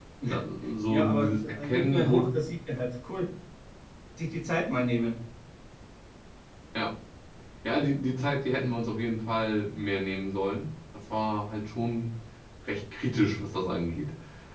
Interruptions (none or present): present